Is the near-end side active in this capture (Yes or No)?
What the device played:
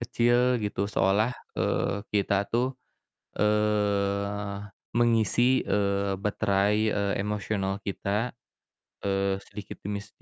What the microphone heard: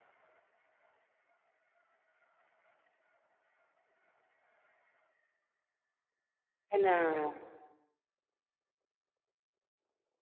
Yes